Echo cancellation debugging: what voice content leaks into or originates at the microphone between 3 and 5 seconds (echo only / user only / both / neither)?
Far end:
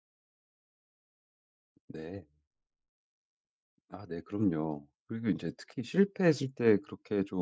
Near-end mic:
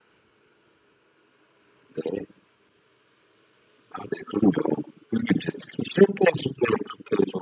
echo only